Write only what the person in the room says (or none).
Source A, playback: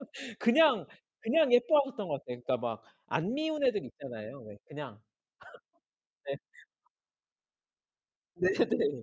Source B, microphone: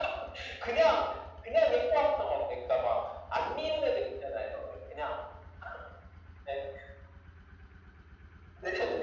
none